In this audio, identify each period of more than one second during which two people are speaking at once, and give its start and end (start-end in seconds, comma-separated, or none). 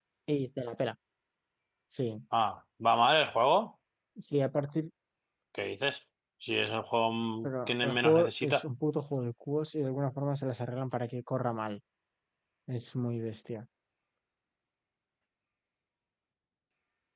7.4-8.6